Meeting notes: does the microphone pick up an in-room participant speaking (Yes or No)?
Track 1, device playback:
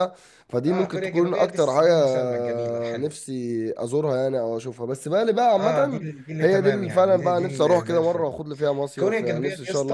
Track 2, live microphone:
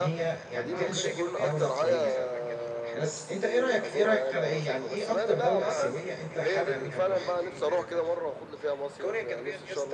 Yes